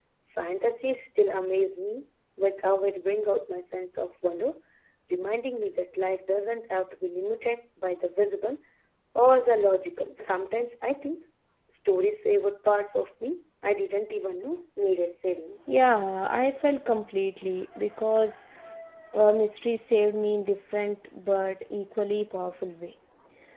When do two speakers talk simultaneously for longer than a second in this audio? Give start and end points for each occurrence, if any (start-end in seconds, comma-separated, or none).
none